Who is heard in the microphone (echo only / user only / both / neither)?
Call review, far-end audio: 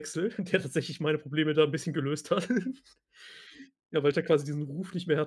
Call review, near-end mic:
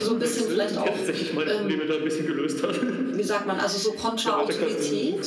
both